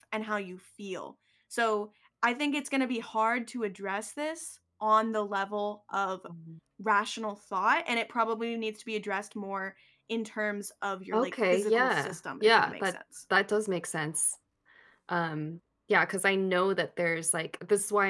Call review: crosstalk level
present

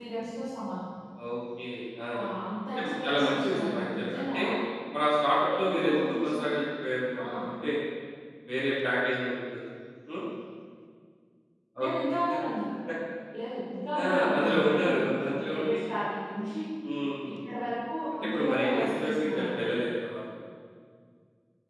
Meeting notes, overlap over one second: present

